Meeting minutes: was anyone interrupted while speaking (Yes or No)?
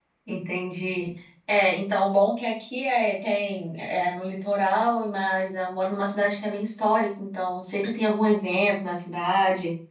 No